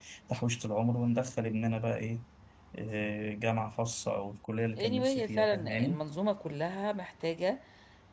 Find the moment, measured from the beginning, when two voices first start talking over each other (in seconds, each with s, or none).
4.8 s